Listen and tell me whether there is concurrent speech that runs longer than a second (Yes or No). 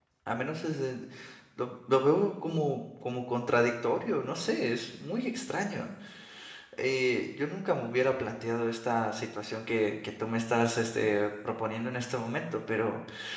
No